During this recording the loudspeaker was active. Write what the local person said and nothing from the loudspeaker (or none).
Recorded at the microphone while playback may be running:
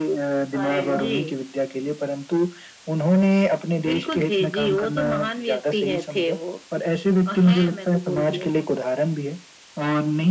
अरे वाह!